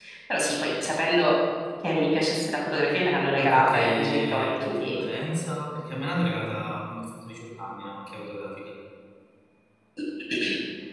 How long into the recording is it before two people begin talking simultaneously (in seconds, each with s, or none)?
3.4 s